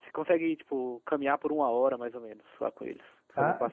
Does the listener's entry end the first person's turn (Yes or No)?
Yes